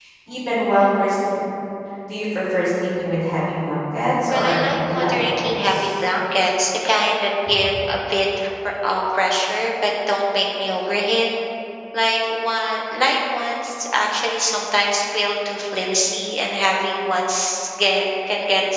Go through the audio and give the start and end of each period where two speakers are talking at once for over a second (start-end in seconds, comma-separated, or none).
4.3-6.0